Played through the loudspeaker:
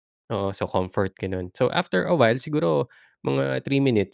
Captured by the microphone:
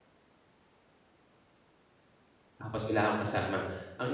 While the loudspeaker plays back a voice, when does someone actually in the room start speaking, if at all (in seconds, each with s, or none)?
2.6 s